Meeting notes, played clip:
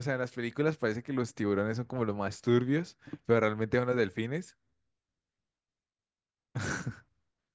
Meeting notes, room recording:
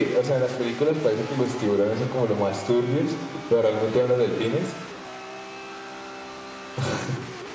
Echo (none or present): present